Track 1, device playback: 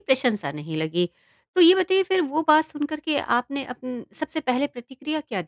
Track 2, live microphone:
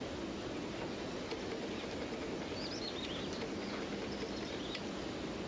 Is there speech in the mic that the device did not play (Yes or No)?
No